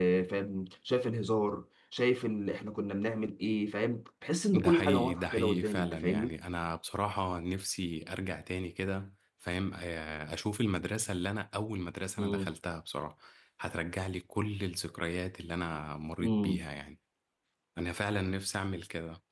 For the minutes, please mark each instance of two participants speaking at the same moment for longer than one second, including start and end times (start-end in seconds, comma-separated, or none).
4.5-6.3